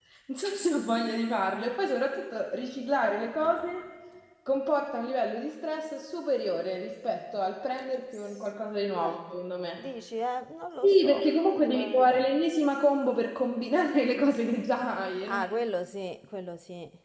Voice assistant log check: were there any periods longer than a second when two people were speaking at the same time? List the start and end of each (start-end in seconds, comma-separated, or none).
10.8-12.3